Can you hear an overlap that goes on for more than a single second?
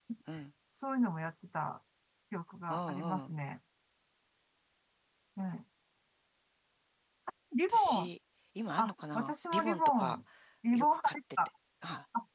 Yes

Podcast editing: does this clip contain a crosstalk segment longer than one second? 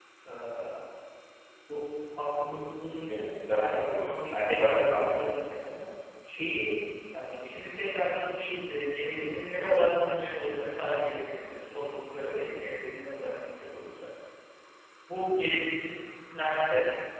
Yes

